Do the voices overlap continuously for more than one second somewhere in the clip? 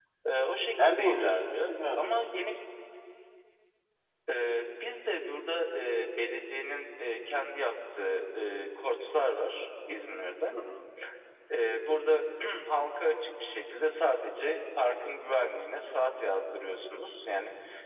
Yes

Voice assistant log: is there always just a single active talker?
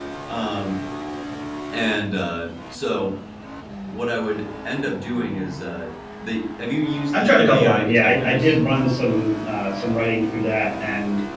No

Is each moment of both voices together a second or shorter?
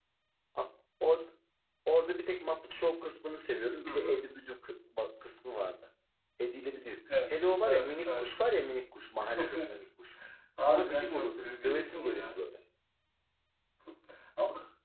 No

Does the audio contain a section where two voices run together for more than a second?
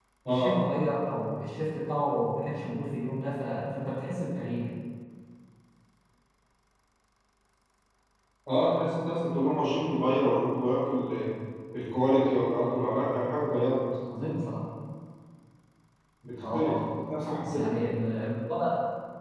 No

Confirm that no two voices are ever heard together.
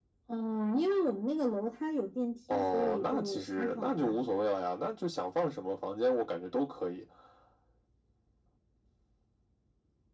No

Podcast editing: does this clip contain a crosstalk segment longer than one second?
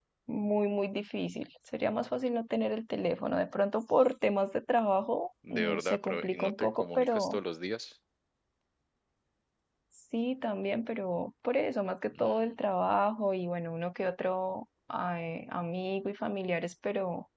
Yes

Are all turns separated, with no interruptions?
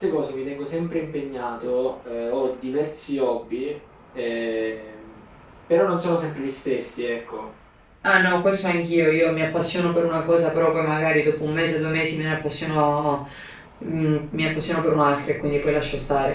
Yes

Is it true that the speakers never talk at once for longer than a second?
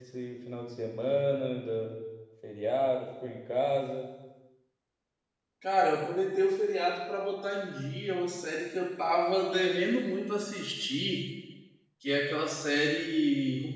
Yes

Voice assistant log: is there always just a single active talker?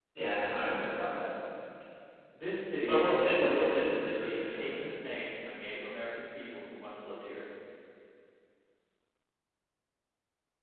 No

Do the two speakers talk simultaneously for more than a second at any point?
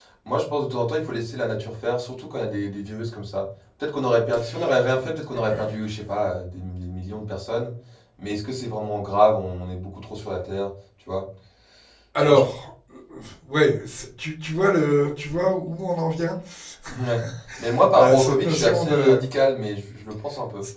Yes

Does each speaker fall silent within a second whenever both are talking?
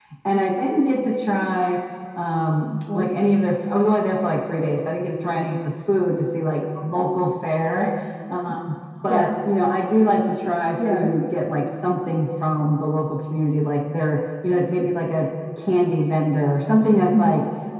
Yes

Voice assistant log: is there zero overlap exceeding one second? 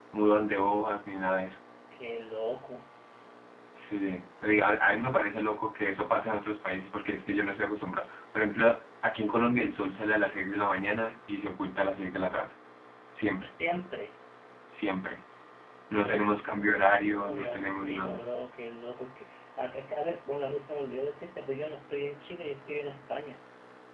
No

